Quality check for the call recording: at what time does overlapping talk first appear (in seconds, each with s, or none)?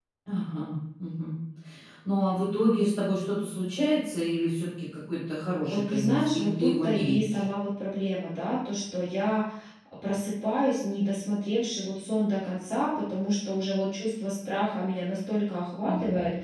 5.7 s